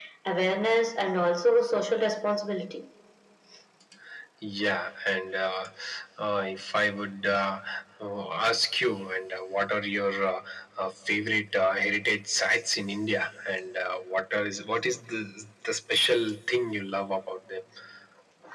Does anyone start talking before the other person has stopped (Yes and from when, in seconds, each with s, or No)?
No